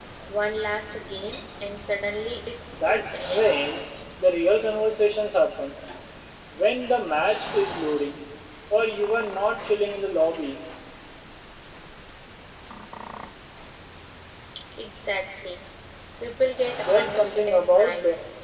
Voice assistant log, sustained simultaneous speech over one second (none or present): present